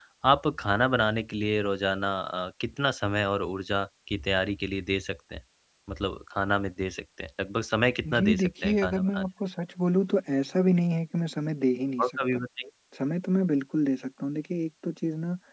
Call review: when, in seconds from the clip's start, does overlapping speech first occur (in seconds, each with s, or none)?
8.1 s